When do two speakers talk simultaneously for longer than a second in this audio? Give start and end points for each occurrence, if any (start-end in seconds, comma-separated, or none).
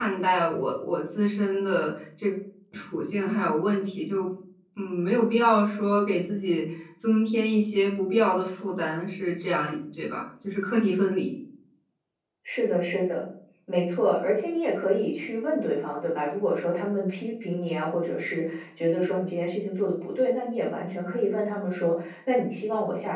none